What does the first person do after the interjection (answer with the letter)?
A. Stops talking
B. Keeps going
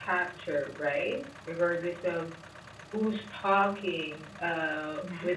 B